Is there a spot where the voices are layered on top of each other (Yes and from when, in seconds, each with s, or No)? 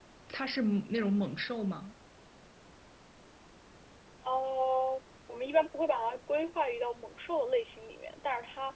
No